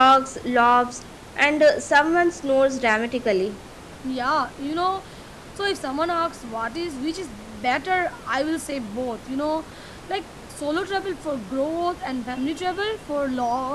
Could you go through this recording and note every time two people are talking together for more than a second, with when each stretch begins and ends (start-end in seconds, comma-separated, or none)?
none